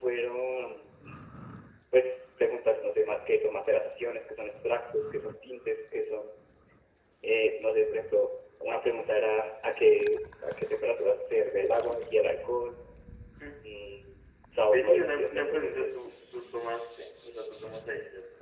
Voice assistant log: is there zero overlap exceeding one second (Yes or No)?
No